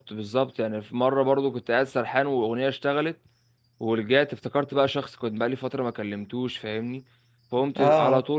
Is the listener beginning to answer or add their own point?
No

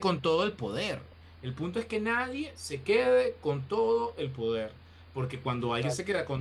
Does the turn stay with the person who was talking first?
Yes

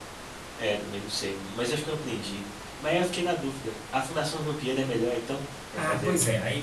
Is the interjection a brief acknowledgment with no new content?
No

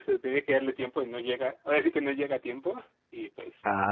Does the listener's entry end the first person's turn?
Yes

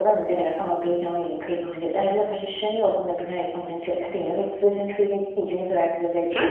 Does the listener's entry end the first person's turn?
Yes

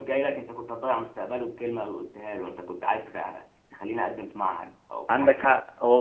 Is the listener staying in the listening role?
No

